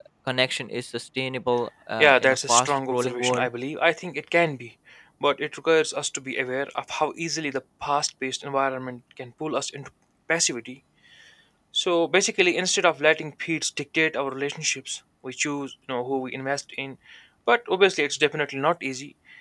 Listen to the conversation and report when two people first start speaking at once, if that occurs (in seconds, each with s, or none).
2.0 s